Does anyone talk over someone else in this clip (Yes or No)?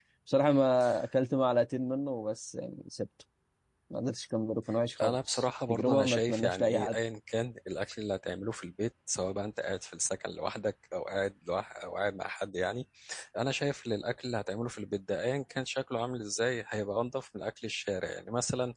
Yes